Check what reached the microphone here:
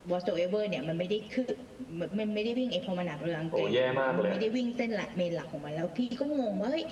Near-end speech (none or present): present